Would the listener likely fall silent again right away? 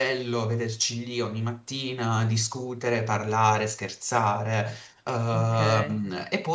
Yes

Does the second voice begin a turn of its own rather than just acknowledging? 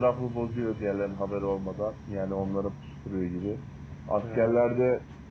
No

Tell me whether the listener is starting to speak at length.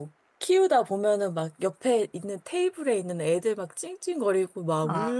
No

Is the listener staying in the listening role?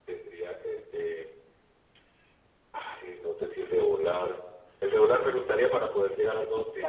No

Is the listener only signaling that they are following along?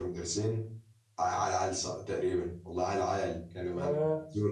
No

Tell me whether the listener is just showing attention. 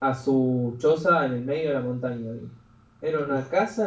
Yes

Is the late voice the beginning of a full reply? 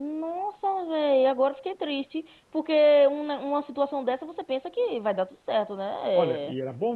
Yes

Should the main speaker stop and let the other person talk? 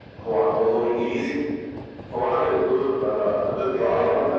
Yes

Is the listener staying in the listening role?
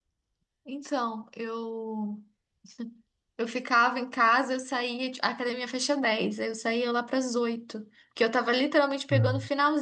Yes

